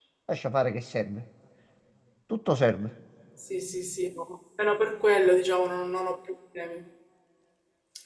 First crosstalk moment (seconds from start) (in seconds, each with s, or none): none